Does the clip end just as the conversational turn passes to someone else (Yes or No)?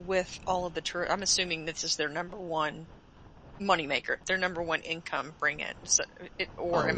Yes